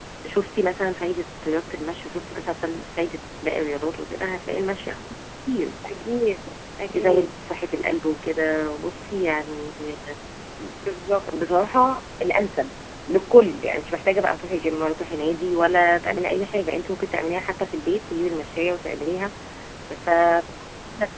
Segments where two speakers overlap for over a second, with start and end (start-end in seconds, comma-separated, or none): none